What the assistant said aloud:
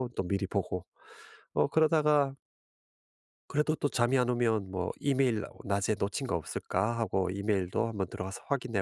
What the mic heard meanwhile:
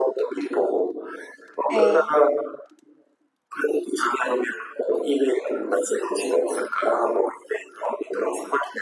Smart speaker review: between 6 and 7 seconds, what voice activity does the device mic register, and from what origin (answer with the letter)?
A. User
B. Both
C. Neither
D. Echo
D